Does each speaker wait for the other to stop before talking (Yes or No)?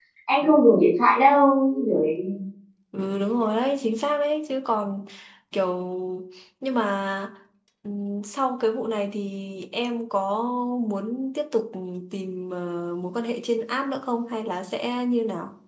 Yes